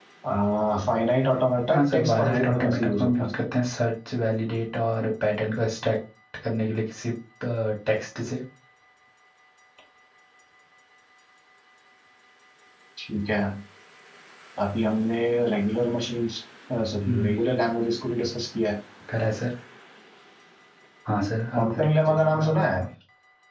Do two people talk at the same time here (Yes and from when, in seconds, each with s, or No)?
Yes, from 1.7 s